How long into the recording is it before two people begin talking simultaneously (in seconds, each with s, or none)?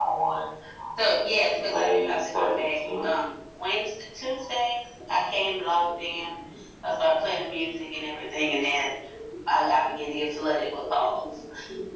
1.6 s